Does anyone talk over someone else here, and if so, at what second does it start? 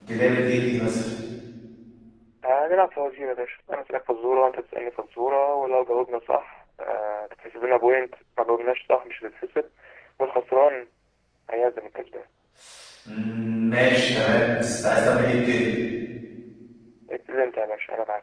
none

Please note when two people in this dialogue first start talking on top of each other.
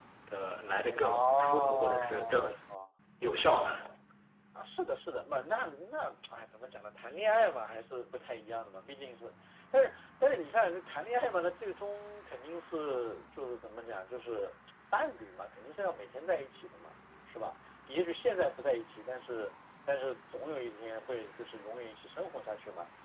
1.0 s

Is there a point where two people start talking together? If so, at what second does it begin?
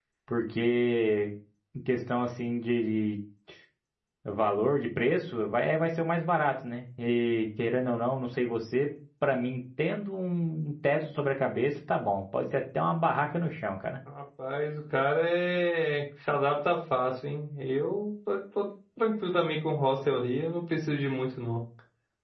none

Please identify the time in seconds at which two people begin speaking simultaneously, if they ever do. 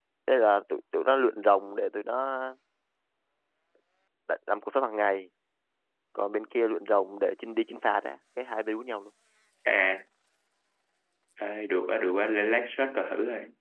none

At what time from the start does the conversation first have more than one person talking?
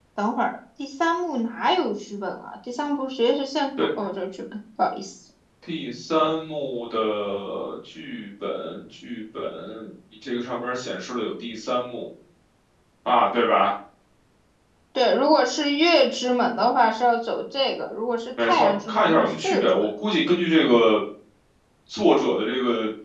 18.4 s

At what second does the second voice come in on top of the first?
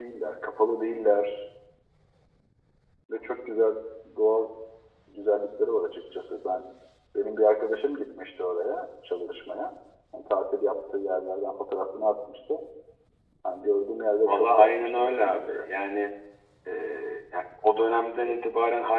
14.3 s

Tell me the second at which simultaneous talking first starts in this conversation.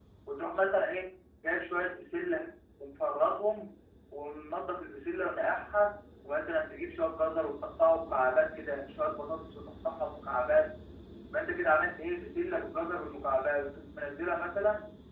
none

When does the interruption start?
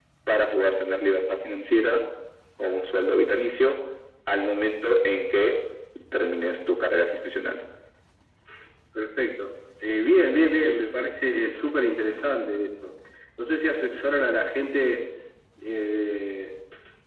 none

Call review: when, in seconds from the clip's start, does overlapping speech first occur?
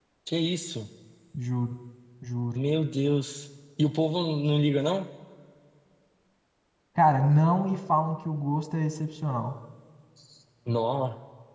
none

